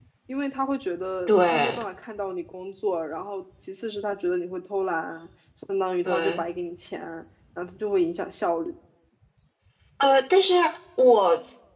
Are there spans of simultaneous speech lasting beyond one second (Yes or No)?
No